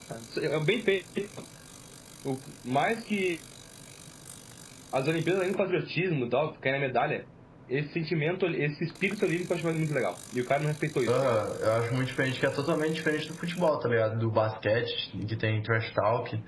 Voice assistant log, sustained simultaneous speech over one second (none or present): none